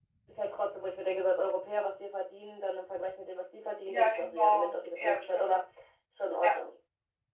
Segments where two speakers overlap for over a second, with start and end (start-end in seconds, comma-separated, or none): 3.9-5.5